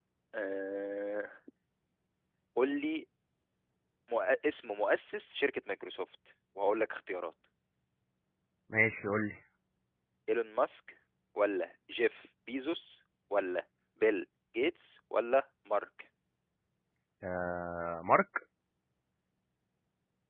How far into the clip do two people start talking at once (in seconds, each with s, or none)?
none